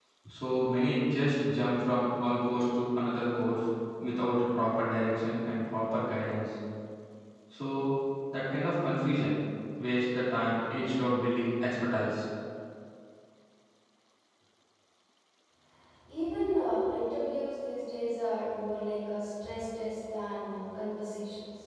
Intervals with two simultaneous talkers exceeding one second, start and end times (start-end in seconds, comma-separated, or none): none